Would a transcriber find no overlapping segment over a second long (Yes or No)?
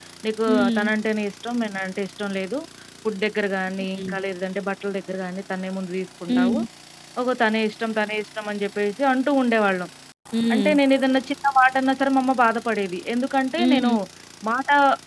Yes